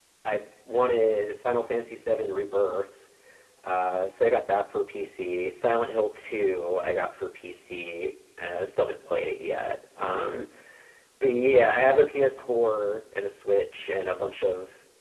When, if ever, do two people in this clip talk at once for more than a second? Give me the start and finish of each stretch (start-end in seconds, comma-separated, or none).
none